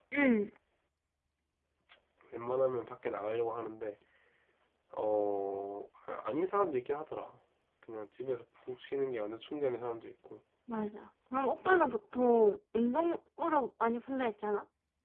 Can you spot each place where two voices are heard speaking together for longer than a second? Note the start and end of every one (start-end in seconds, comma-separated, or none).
none